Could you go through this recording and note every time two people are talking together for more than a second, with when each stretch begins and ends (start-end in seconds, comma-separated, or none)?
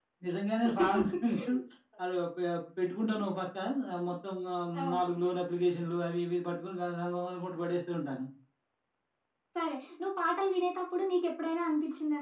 none